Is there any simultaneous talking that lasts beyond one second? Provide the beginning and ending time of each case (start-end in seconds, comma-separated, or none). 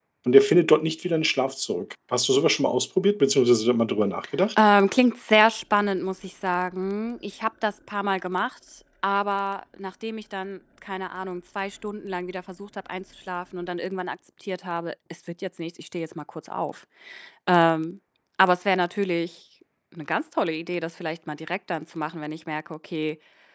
none